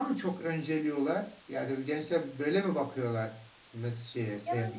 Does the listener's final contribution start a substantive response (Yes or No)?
Yes